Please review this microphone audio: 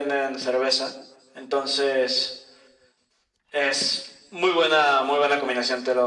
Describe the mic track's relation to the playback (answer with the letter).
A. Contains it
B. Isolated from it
A